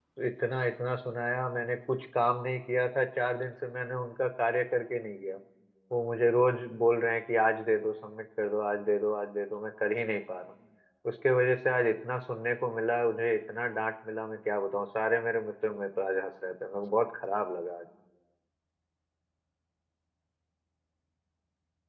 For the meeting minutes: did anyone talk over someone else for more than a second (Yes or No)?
No